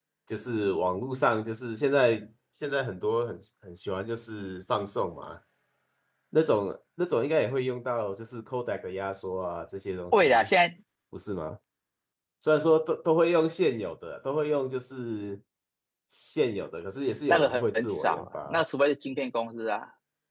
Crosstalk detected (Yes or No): Yes